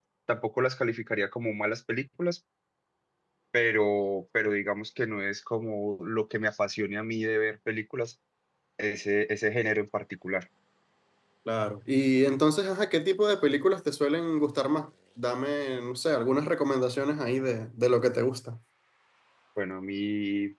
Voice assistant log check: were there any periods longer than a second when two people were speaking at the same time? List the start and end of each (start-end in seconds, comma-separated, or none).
none